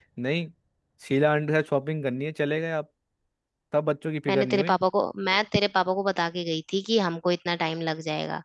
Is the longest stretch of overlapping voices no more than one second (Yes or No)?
Yes